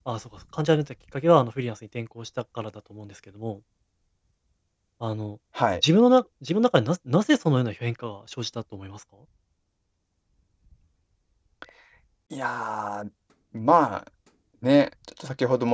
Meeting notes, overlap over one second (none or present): none